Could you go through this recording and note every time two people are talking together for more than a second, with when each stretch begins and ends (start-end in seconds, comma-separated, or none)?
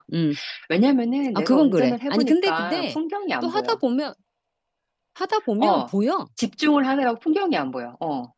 1.4-3.0